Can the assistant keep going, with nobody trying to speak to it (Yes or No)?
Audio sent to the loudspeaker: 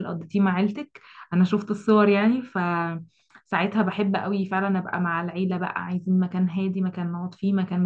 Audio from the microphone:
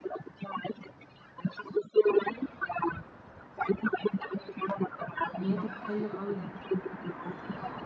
No